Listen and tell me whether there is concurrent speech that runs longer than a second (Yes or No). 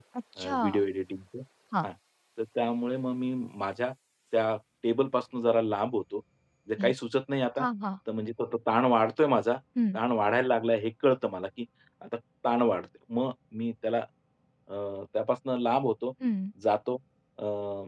No